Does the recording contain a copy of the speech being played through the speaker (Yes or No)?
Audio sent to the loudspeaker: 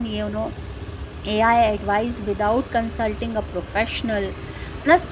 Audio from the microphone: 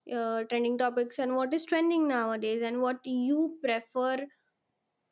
No